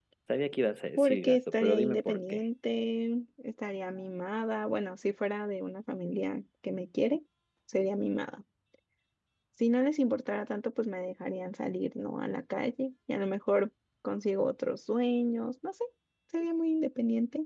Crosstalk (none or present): present